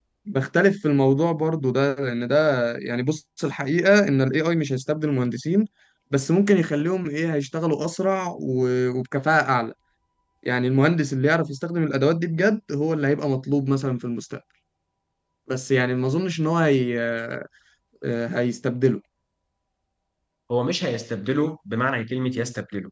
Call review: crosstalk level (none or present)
none